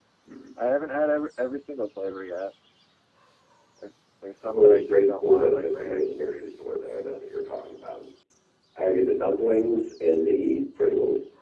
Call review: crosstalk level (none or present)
present